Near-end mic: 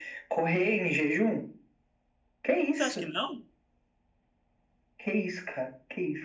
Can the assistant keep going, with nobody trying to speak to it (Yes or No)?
No